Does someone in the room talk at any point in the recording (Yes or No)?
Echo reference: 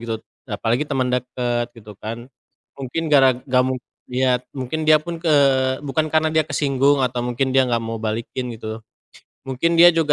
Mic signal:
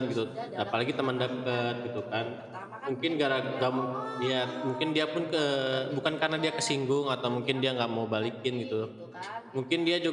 Yes